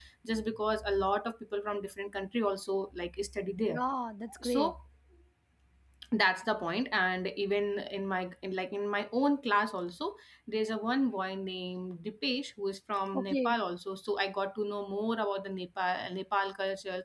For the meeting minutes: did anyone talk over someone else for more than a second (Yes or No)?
No